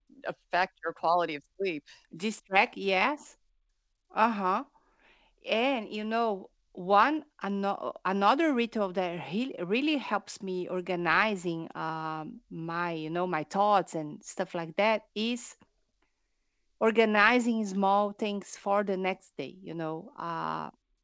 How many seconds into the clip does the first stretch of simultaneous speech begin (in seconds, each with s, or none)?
none